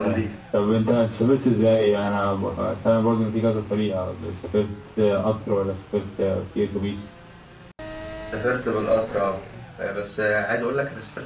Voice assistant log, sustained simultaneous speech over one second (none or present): none